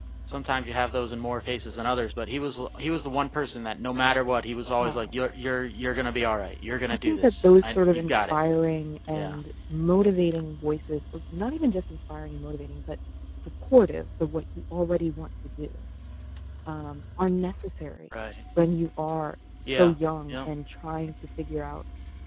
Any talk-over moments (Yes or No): Yes